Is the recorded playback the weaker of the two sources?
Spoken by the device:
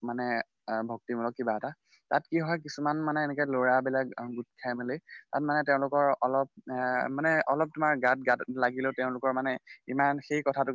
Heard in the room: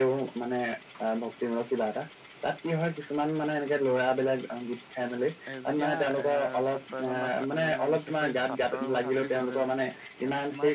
No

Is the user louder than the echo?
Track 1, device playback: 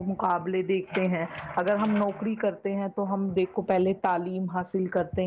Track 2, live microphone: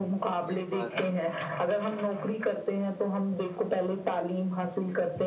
No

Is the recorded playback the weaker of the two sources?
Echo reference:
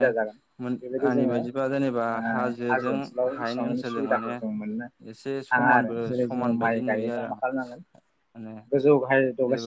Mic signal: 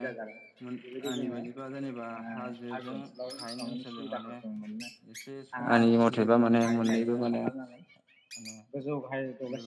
Yes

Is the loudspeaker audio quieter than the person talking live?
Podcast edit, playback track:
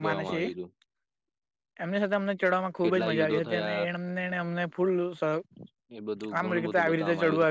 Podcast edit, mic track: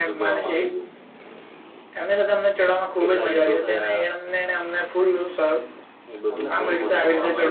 No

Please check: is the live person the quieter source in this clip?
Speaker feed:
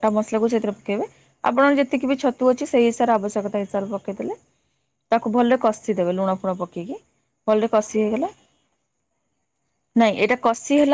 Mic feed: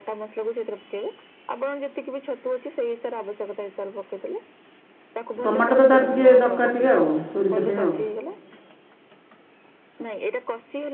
No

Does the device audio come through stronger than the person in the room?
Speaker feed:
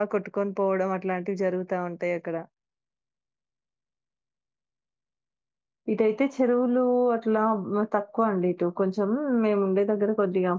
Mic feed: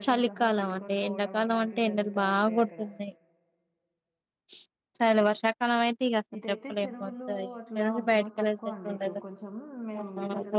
No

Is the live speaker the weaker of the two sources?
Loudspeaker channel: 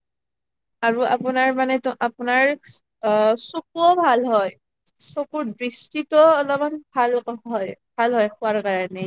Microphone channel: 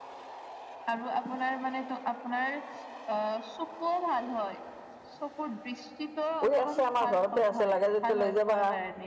No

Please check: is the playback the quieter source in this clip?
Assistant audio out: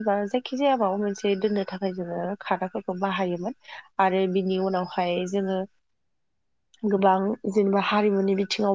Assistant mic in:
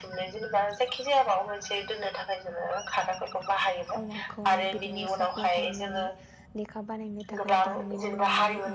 No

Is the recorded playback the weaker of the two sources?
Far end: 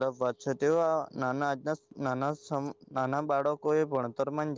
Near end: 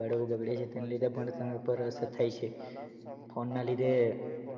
Yes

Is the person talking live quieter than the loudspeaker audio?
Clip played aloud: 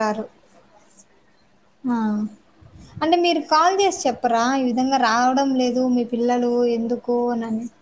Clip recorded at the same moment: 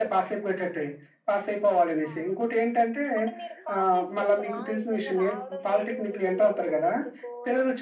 No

